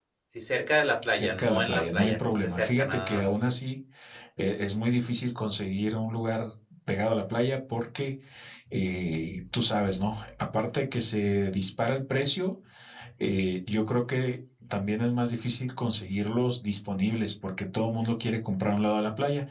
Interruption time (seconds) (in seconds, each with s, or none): 1.0 s